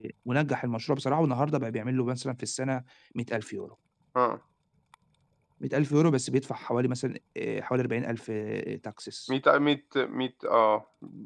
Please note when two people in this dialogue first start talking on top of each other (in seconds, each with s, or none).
none